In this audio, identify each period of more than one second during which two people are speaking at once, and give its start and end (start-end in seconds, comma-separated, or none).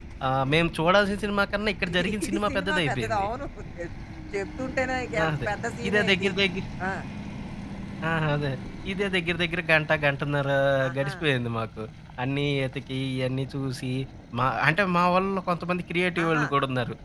1.9-3.2